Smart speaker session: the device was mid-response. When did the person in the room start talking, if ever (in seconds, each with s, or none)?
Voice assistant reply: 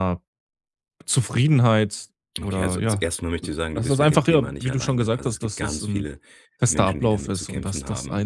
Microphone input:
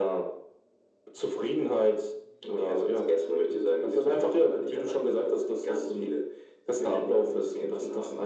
none